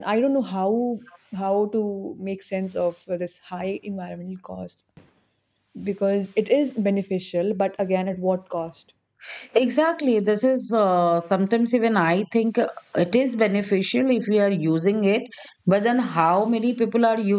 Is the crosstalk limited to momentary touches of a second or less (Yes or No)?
Yes